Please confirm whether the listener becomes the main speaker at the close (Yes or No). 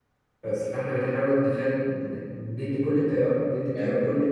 No